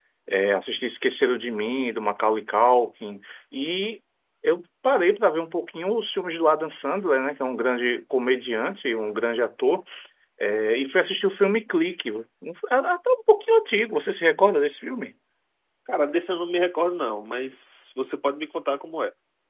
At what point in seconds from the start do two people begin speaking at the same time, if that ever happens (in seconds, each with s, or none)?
none